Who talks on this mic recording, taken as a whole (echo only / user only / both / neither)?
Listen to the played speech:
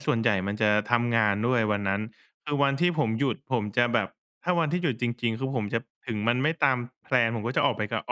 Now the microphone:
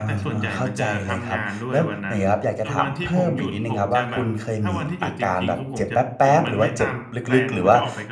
both